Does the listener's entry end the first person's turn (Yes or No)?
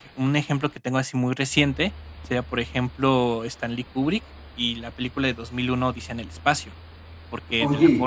No